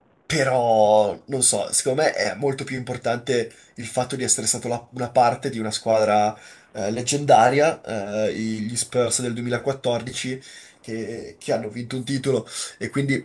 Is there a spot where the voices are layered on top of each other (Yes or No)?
No